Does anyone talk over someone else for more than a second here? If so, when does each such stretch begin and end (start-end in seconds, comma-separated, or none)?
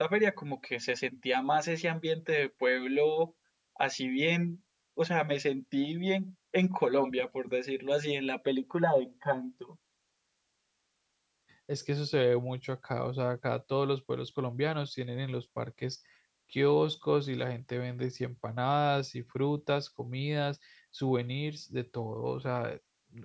none